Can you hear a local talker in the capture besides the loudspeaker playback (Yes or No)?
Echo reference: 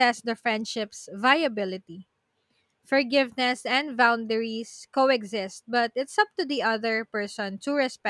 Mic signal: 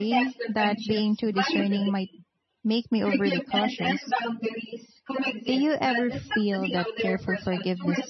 Yes